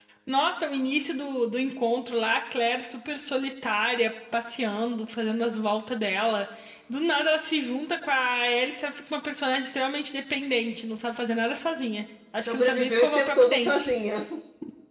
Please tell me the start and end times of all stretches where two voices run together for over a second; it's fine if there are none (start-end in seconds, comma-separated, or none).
12.4-13.9